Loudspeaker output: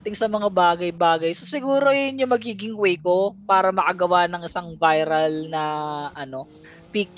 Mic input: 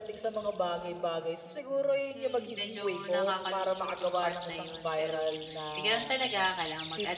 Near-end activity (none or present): present